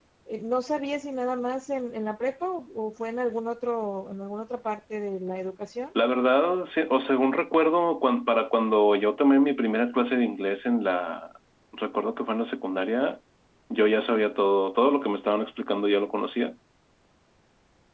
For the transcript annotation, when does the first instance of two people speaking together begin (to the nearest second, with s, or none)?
none